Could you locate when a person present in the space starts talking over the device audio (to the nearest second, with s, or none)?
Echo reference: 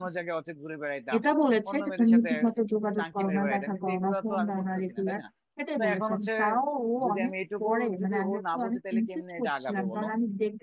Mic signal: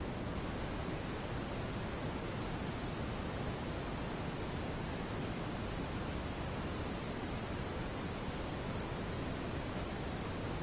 none